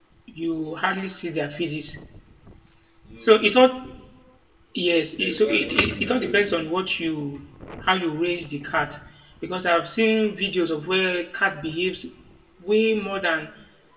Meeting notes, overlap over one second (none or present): present